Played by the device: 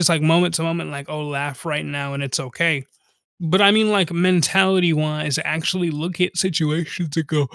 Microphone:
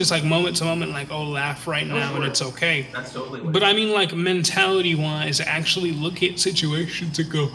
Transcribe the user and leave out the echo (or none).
Oh, sure. That's totally what it is.